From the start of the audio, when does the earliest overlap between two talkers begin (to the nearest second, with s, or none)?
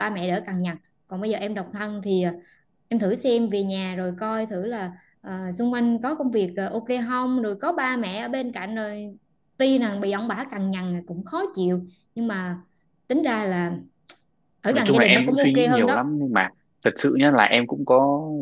15 s